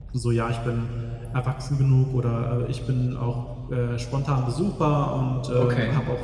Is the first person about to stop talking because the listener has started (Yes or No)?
No